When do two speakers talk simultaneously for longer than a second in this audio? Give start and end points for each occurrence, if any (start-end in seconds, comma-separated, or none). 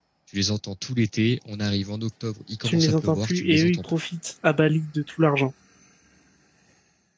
2.6-3.9